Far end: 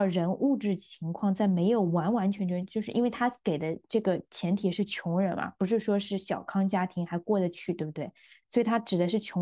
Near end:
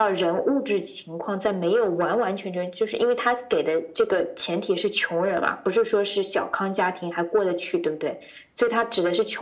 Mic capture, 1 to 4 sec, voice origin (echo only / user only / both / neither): echo only